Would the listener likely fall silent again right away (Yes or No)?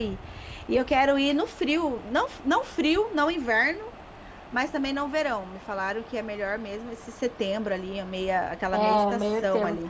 No